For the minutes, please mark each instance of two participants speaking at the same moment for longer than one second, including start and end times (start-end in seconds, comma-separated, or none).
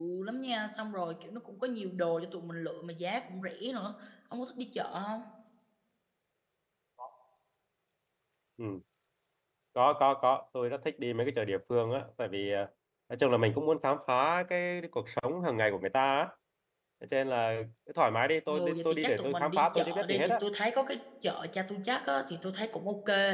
18.5-20.3